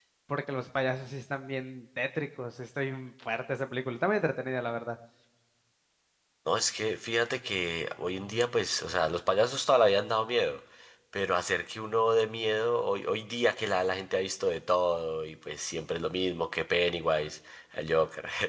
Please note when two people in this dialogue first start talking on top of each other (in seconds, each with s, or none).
none